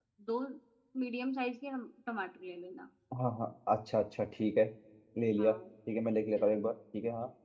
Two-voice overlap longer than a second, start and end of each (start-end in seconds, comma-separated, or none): none